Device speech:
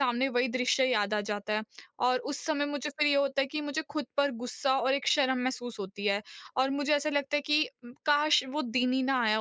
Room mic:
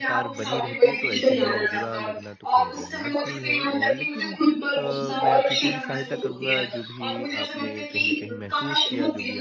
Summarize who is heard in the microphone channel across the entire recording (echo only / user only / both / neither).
both